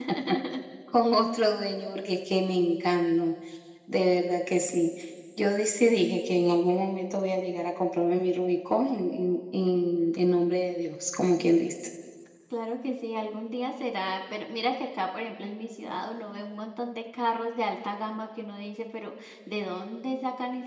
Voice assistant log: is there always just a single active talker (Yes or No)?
Yes